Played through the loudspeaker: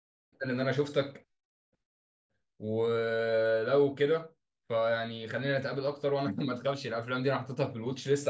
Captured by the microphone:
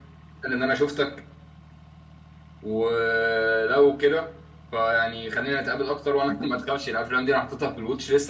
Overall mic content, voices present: echo only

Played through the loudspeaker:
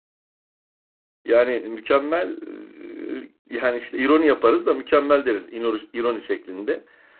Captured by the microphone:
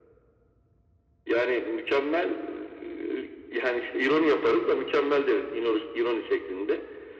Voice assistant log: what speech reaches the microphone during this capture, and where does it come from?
echo only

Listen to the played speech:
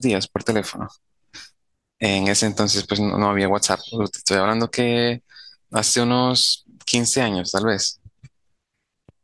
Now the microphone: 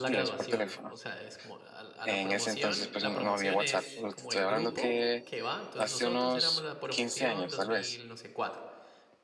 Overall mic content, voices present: both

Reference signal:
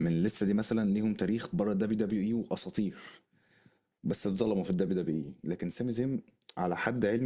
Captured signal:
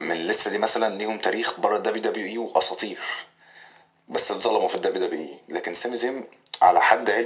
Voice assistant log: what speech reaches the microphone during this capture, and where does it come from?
echo only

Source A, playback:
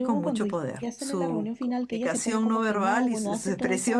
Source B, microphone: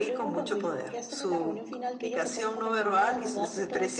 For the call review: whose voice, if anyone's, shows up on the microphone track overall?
echo only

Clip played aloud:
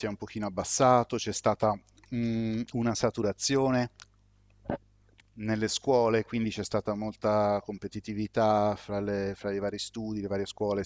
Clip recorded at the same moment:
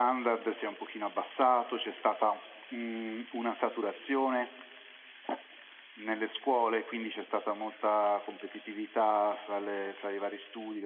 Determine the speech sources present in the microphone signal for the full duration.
echo only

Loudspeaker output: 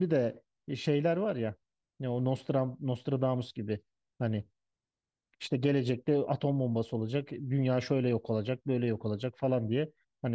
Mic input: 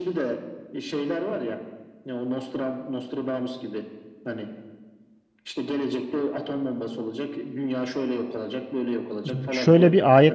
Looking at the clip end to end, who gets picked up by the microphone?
both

